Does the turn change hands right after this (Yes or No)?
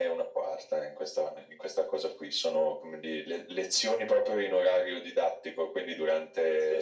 No